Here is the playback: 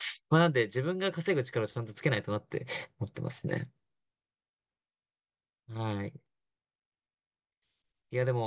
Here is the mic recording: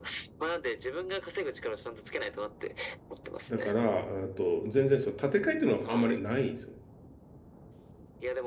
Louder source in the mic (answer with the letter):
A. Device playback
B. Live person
B